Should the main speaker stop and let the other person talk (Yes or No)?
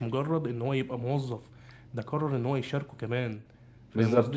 Yes